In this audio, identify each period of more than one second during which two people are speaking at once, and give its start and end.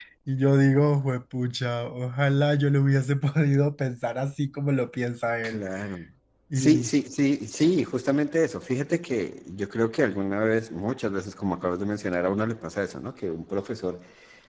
none

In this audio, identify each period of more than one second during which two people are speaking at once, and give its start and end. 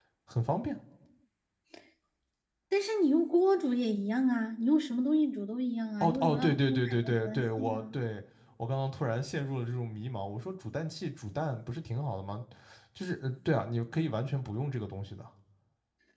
6.0-8.0

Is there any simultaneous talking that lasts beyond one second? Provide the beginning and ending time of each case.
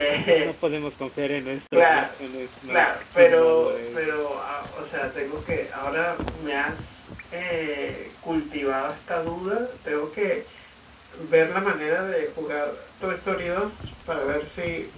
2.7-4.0

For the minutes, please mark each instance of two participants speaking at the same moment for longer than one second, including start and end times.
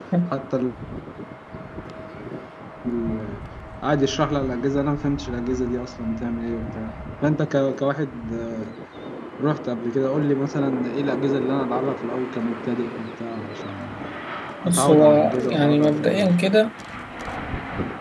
14.6-16.3

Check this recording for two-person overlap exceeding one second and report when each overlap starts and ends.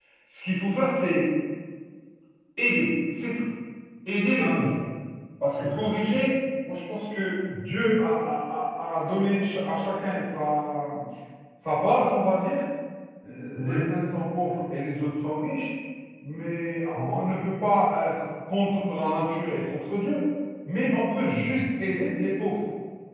none

